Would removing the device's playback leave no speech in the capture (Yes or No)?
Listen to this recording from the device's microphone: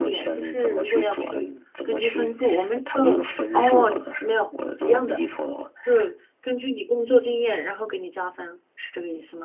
No